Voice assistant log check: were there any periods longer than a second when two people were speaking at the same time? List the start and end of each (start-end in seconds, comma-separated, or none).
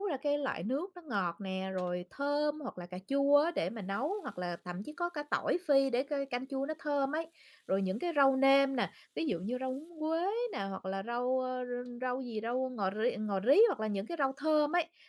none